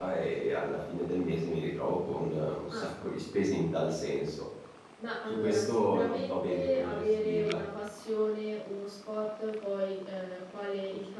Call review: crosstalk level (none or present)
present